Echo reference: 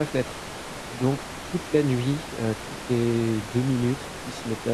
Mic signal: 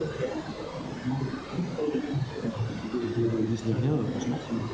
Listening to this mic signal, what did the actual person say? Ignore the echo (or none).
j'avais pas de valise ni rien, heureusement,